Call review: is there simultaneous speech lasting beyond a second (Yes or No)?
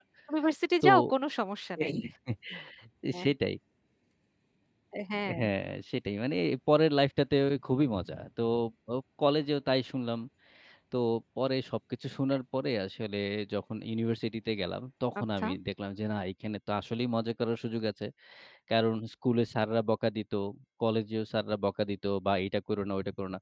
No